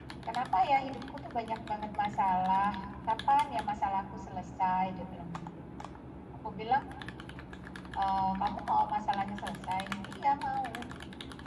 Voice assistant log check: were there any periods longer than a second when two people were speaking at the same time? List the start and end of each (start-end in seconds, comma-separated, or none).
none